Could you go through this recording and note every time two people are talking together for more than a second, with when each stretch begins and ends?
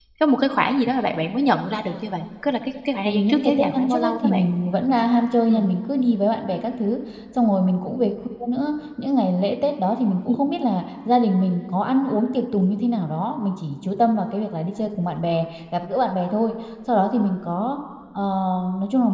3.0-4.4

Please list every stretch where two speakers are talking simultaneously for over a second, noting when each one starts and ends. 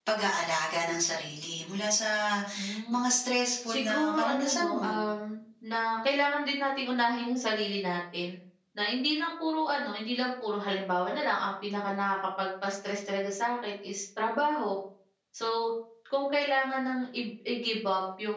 3.6-5.0

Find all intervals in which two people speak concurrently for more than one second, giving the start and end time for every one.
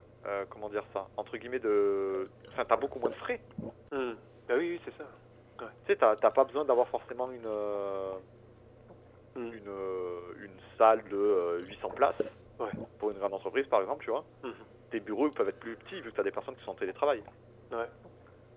none

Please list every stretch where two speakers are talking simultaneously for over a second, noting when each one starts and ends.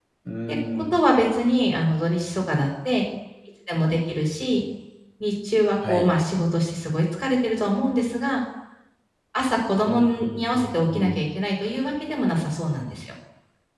9.9-11.2

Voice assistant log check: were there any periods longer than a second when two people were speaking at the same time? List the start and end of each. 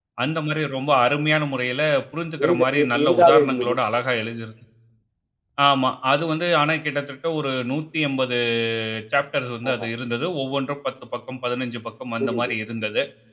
2.4-3.7

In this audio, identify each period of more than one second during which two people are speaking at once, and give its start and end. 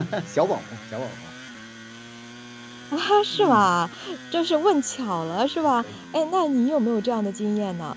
none

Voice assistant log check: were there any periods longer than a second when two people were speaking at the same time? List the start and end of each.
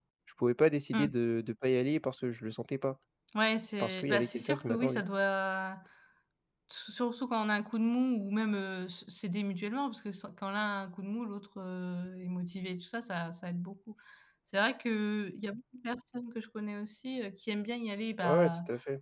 3.8-5.0

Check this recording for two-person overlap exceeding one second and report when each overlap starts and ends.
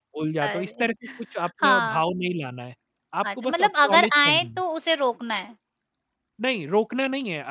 3.2-4.6

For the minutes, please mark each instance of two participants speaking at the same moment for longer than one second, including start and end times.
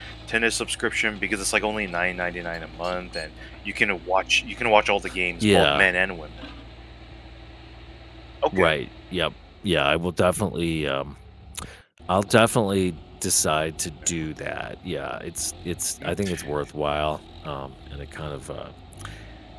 none

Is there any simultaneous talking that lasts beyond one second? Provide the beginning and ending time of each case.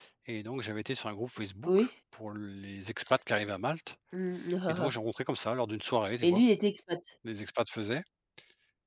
none

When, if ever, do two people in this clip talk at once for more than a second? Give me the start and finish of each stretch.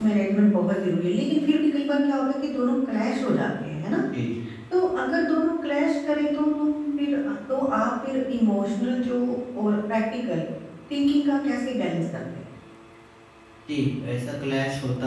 none

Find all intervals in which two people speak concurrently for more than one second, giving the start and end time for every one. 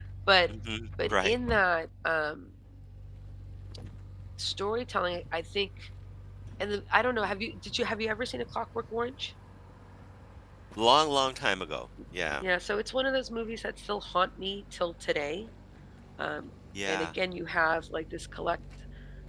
none

